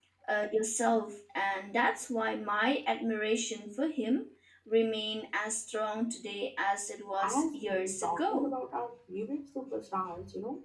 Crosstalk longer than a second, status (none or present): present